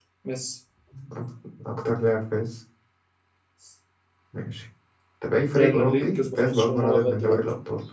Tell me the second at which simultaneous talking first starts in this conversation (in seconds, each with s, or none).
5.5 s